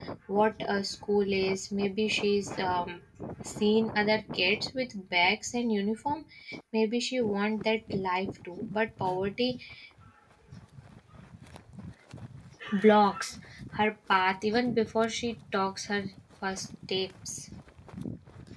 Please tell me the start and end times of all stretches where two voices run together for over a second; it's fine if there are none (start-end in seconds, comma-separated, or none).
none